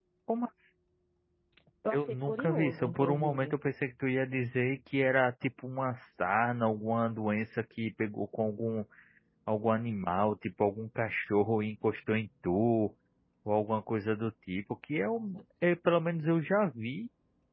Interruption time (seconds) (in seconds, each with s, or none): 1.9 s